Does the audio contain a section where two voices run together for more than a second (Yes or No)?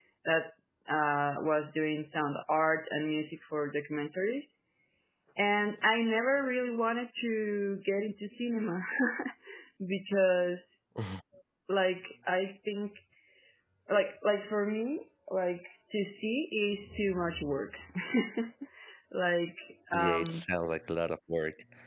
No